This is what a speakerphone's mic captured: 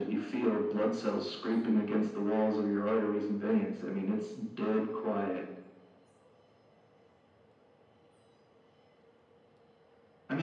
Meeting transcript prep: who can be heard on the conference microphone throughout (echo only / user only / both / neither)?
echo only